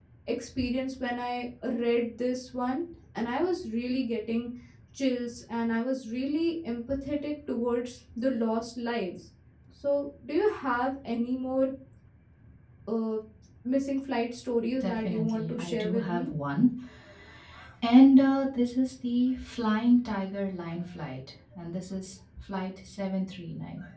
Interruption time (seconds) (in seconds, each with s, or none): 14.8 s